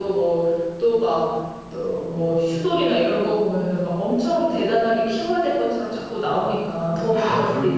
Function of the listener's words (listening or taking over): taking over